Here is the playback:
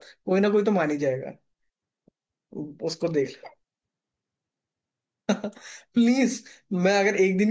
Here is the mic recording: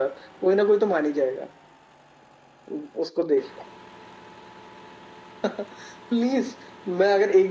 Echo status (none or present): present